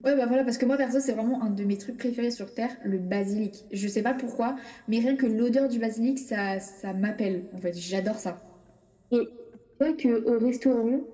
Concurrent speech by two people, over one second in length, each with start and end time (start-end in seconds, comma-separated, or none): none